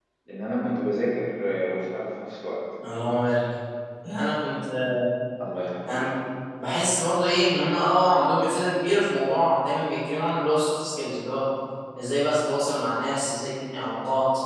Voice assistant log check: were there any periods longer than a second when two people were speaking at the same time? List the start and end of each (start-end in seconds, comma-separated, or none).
none